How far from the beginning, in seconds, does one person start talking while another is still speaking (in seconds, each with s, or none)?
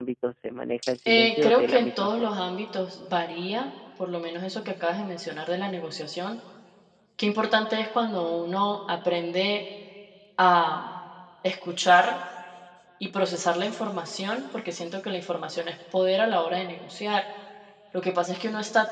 1.1 s